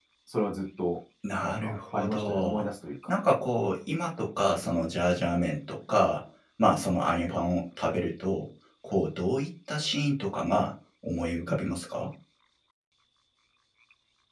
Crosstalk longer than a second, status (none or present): present